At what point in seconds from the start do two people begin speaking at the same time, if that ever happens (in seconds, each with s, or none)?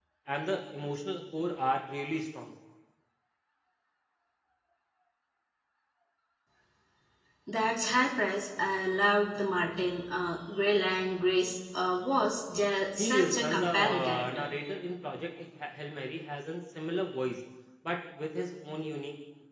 13.0 s